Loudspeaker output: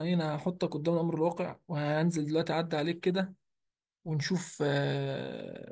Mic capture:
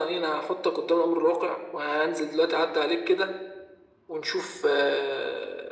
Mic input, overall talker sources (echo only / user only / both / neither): echo only